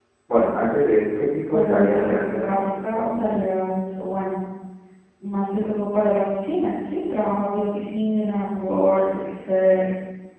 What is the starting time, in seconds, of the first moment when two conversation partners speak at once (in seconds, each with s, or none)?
1.5 s